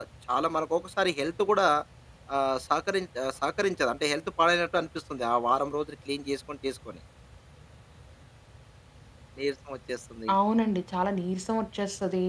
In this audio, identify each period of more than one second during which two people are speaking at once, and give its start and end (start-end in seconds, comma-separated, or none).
none